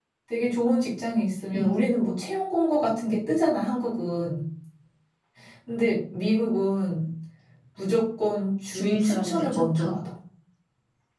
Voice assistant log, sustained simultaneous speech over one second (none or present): present